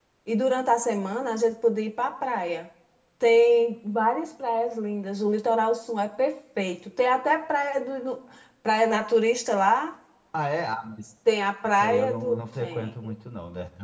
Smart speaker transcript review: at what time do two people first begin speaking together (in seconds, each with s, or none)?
11.6 s